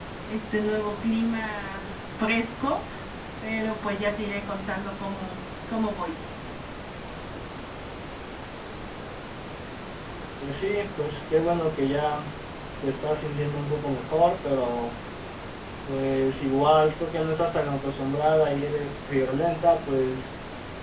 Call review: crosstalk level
none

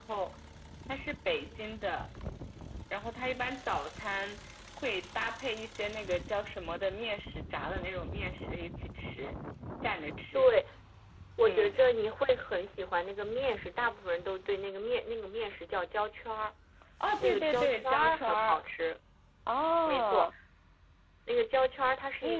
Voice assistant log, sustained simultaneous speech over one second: present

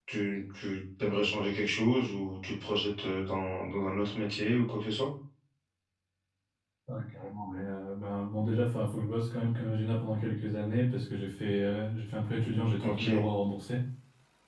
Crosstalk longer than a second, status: none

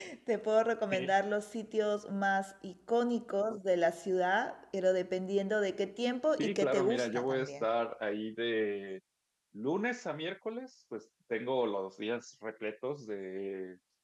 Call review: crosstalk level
present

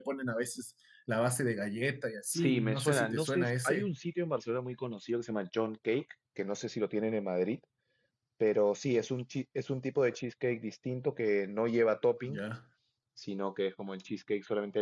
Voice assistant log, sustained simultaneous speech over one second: present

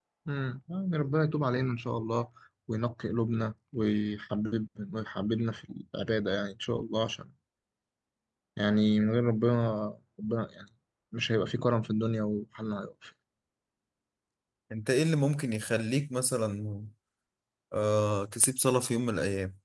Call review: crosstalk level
none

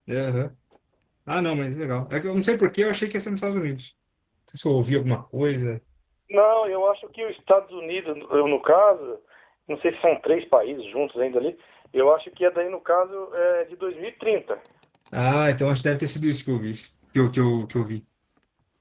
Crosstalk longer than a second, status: none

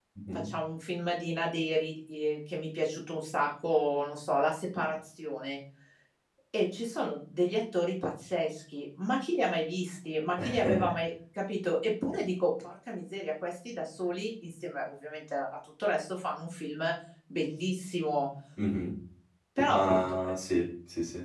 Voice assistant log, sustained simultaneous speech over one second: none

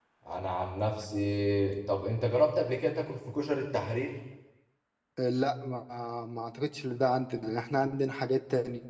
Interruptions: none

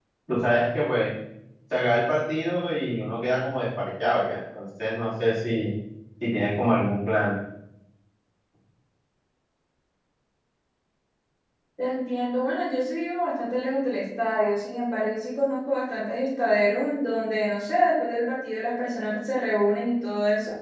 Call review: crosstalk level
none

